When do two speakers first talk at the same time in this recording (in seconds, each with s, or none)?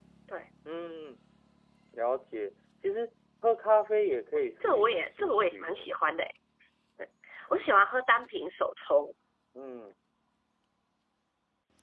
4.3 s